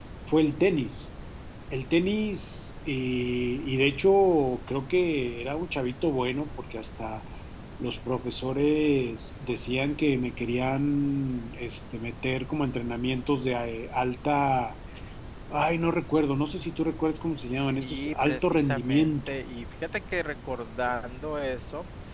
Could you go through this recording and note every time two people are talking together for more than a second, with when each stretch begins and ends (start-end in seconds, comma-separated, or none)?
17.5-19.3